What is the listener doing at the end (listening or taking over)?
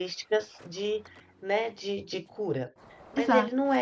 listening